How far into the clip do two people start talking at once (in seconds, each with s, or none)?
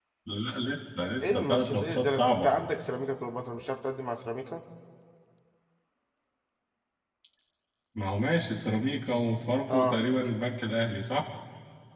1.2 s